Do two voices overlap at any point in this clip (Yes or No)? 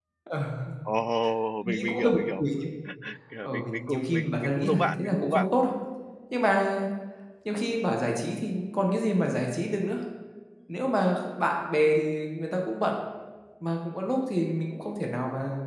Yes